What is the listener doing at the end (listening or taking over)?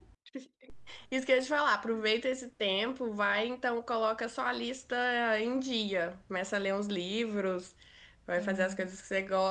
listening